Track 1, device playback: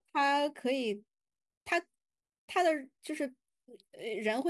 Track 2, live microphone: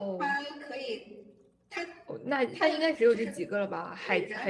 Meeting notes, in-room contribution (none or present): present